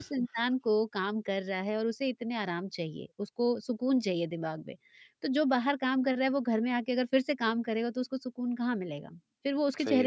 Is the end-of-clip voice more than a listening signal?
Yes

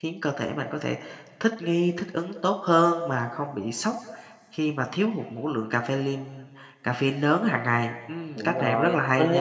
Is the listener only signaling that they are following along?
No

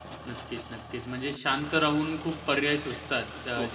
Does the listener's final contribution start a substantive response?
No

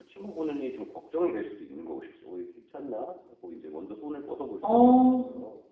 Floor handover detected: Yes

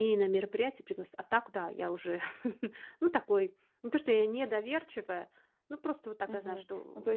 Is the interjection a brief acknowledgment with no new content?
No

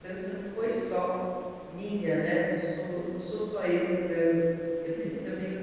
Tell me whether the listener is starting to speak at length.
No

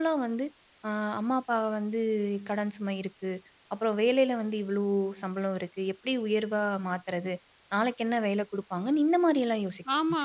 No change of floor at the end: No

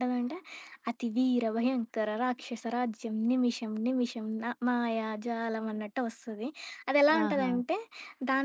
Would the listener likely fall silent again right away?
Yes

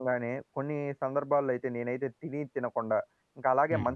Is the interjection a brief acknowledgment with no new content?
Yes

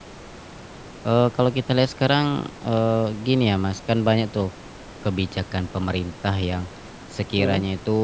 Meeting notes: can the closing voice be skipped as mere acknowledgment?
Yes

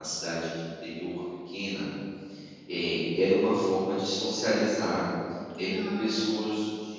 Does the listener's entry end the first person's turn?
No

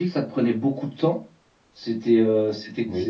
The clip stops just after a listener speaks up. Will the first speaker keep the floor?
Yes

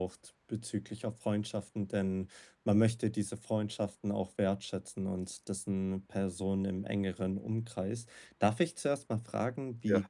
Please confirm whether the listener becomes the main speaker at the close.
No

